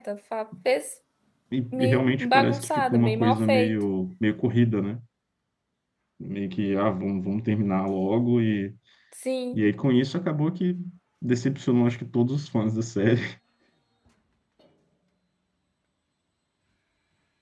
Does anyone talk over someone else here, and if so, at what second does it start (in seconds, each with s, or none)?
1.7 s